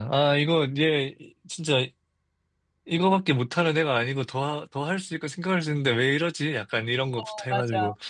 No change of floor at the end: No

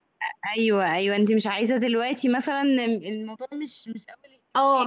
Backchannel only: No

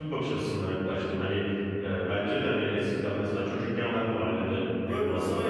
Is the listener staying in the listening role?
No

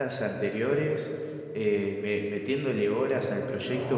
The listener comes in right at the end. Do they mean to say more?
Yes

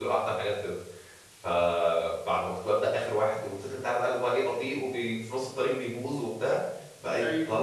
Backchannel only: Yes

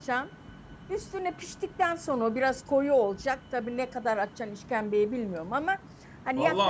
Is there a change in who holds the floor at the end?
Yes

